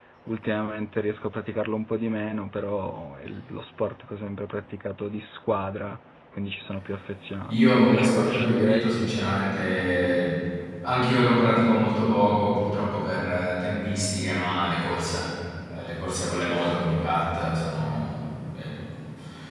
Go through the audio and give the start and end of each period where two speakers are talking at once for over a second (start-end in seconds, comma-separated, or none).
7.5-9.1